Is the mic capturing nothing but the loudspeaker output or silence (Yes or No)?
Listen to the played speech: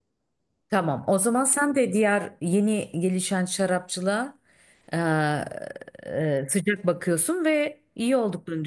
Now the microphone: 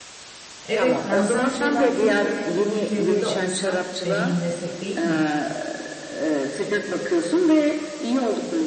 No